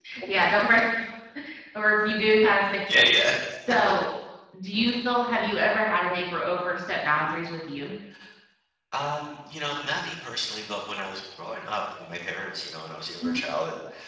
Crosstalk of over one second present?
No

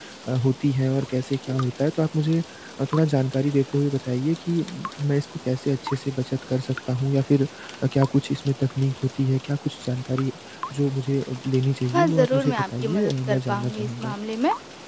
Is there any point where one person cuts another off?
Yes, from 11.9 s

